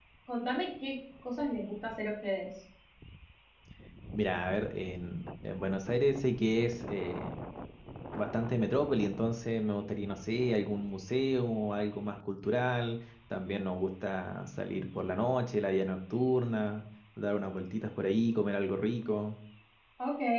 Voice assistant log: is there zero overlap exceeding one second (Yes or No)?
Yes